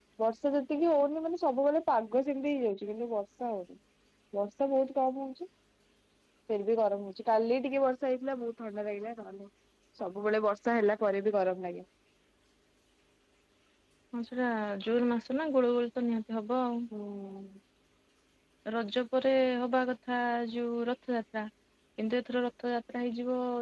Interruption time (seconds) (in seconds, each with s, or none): none